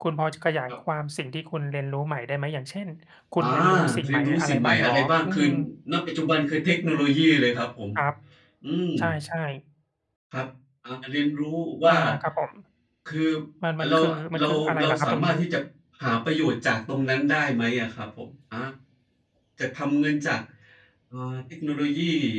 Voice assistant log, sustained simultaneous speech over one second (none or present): present